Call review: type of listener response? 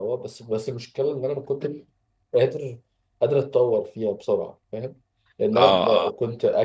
listening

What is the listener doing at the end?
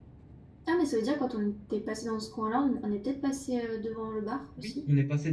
taking over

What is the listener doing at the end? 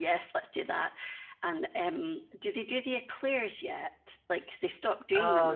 taking over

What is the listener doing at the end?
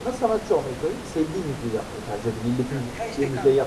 taking over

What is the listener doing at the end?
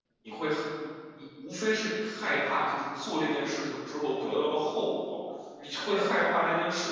listening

